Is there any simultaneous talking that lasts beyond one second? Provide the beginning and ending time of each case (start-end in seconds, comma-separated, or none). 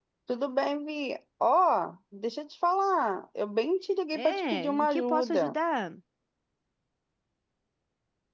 4.1-5.5